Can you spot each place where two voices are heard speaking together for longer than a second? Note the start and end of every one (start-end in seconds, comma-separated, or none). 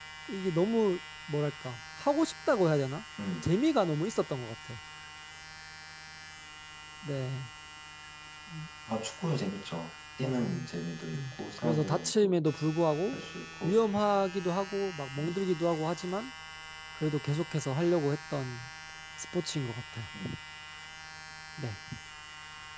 11.1-12.3